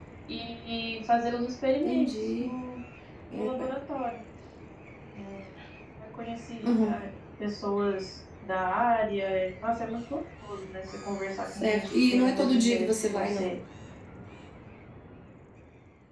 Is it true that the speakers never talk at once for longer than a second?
No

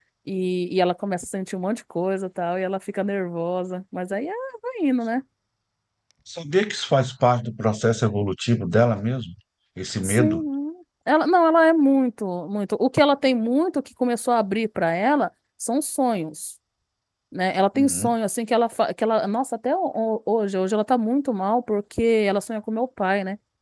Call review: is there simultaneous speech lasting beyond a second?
No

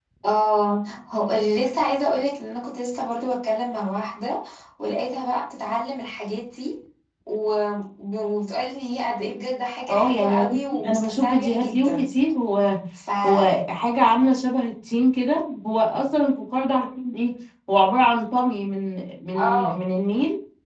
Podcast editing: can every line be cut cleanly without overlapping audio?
No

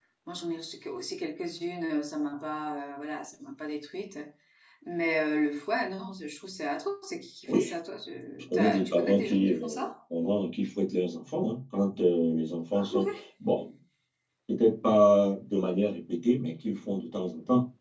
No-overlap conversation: No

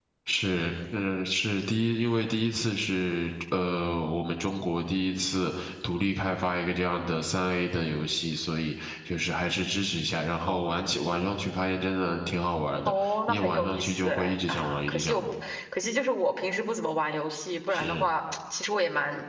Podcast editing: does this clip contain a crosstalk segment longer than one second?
Yes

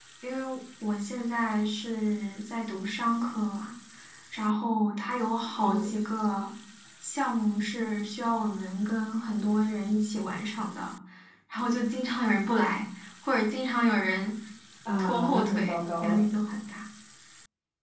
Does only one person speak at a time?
No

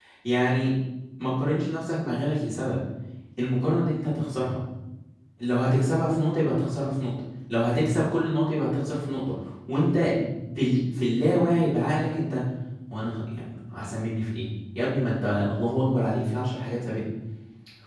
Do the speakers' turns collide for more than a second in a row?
No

